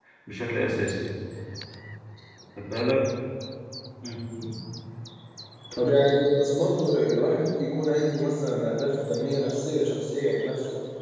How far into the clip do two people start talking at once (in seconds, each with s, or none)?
none